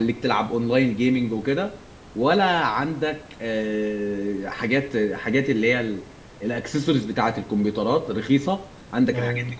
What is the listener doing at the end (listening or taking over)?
listening